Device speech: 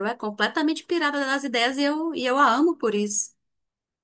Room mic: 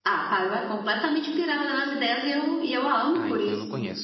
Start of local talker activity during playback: 3.1 s

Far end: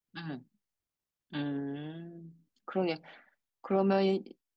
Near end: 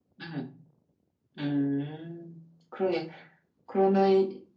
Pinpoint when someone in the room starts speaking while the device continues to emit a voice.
none

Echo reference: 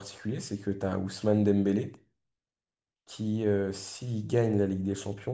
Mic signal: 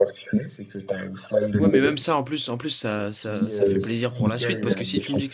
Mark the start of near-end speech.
1.6 s

